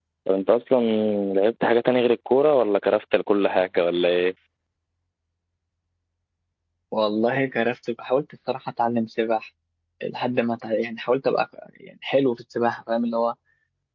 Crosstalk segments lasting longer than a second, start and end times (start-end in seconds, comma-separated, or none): none